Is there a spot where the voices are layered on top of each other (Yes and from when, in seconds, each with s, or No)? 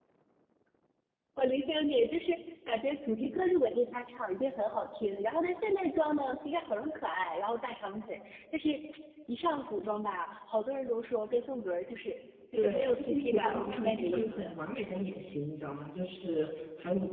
Yes, from 12.5 s